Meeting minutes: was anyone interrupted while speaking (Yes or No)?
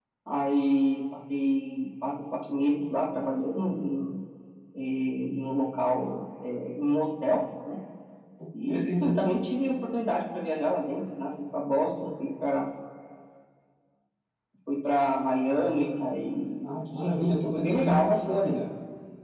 Yes